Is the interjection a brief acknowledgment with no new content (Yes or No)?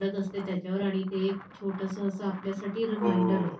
No